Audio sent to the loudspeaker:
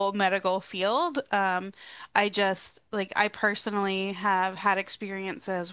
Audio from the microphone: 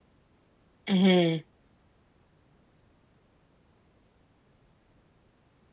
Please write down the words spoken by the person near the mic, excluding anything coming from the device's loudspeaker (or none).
hmm